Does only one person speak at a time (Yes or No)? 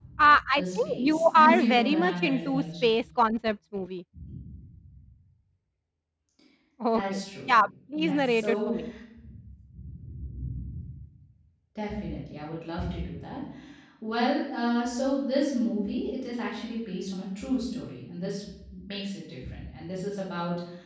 No